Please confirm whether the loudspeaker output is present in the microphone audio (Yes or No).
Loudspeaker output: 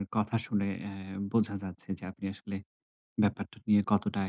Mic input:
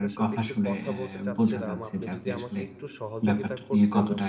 Yes